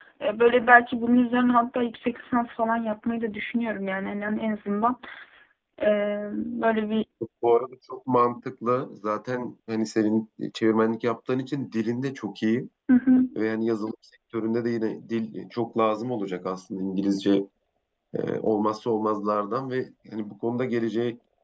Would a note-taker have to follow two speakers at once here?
No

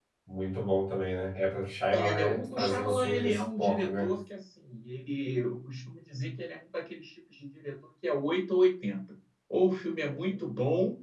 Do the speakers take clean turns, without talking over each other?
No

